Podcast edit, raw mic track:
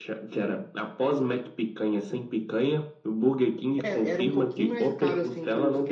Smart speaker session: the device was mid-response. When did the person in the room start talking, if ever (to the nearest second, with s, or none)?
4 s